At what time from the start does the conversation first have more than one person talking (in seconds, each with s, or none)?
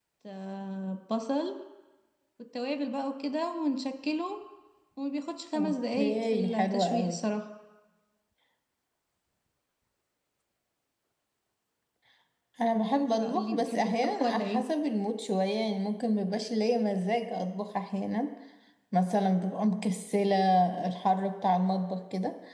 5.6 s